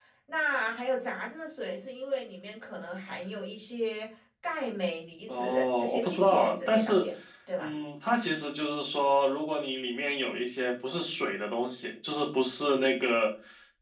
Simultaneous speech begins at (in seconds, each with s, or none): 5.3 s